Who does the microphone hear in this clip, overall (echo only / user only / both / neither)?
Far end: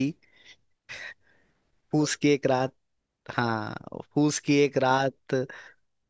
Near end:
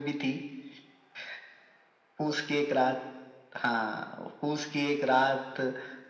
echo only